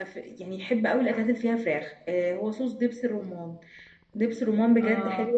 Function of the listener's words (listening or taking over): listening